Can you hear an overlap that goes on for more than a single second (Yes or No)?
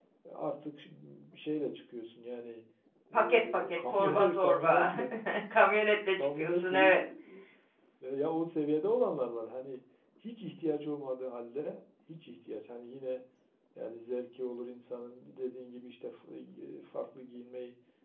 Yes